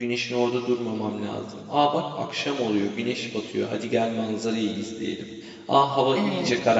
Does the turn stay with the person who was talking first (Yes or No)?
Yes